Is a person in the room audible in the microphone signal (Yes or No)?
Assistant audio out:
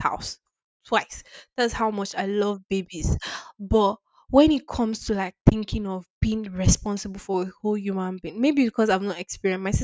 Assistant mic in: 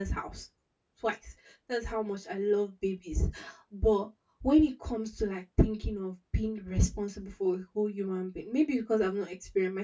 No